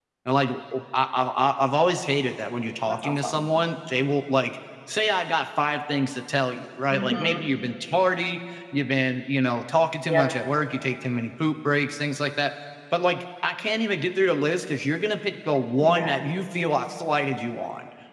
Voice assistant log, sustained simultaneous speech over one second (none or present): none